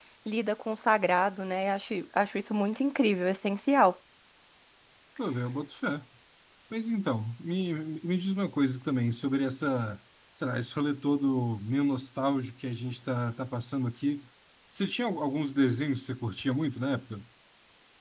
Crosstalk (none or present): none